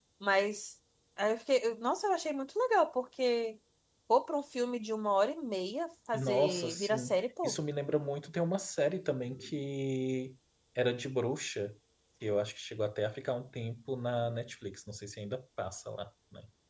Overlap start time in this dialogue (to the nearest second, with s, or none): 6 s